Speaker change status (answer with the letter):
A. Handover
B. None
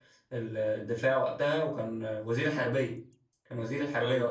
B